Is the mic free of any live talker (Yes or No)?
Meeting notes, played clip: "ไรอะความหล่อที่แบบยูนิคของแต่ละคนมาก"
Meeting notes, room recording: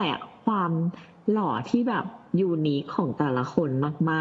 Yes